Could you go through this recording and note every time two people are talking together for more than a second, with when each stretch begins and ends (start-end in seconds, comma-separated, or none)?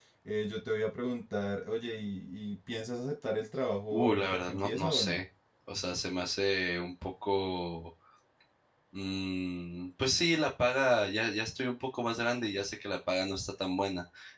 3.9-5.2